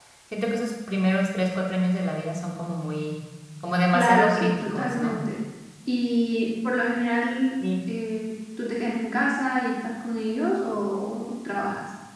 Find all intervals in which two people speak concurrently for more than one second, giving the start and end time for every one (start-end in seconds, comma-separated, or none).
3.9-5.2